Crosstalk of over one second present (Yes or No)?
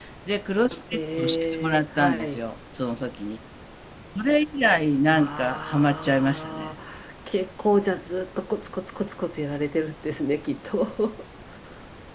Yes